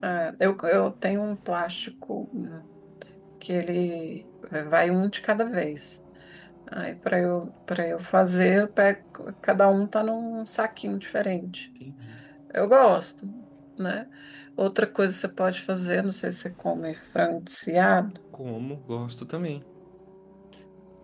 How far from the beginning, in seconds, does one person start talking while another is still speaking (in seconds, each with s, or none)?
none